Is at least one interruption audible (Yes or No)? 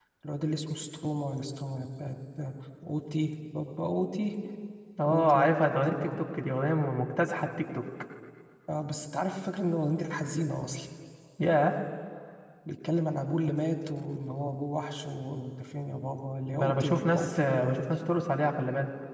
Yes